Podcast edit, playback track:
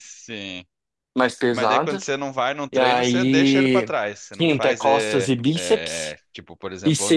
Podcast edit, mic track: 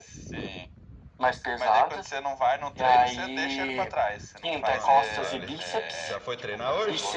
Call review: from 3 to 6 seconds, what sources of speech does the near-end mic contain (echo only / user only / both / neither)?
both